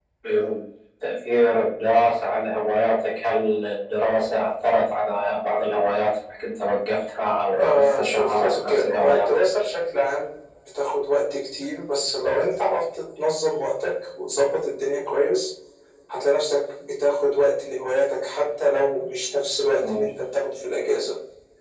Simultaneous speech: Yes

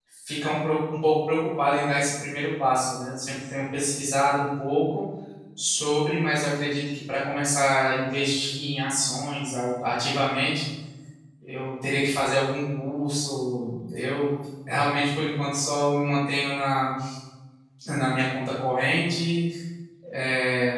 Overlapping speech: No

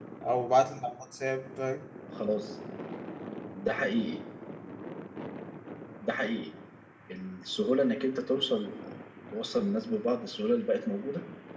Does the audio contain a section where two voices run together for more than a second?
No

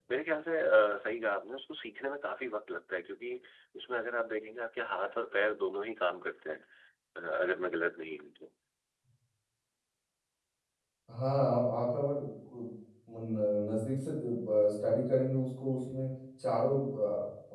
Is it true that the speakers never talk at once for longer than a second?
Yes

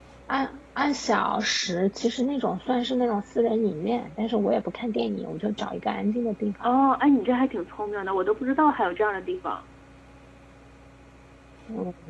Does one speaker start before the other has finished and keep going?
No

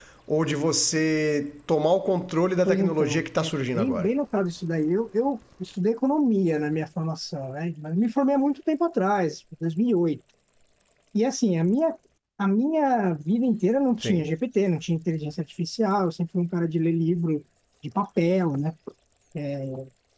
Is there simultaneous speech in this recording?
Yes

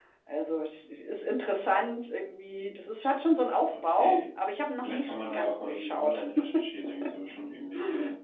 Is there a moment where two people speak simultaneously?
Yes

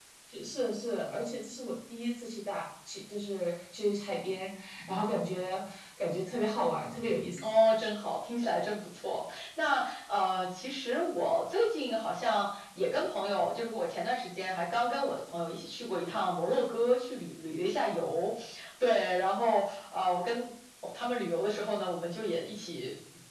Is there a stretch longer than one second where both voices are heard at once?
No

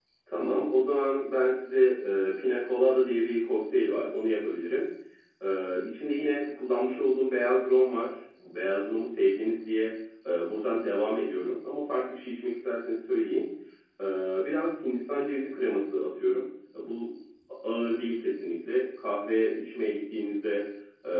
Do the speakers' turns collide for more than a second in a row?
No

